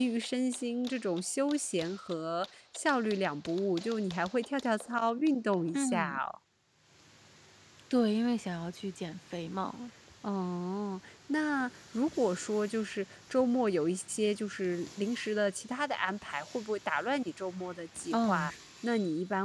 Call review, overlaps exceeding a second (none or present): none